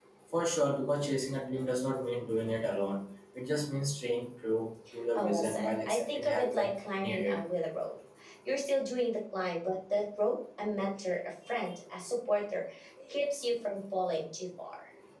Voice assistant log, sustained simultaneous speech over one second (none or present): present